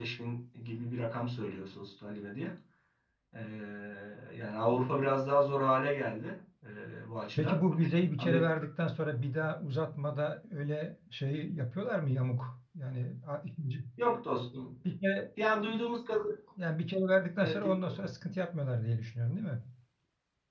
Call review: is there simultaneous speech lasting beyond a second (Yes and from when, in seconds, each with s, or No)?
No